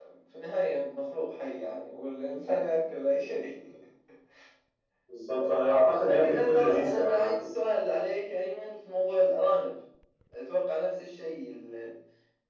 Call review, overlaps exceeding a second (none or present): present